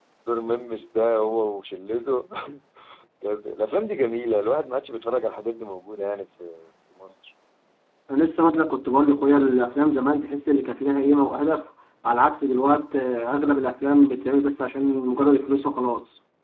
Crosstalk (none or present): none